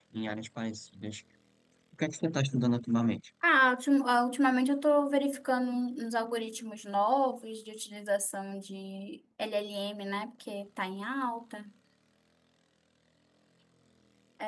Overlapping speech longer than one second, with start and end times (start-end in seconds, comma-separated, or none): none